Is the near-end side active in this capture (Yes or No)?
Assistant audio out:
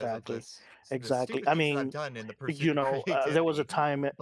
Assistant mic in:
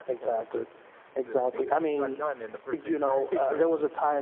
No